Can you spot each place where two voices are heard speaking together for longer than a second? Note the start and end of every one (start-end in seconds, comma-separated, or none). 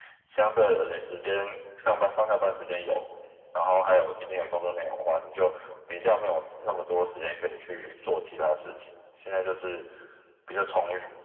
none